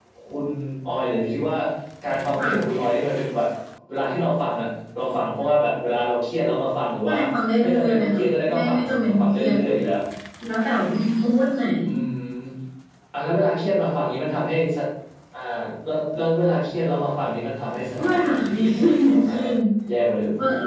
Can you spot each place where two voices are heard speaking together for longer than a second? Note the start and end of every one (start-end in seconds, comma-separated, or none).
7.6-9.6, 18.0-19.5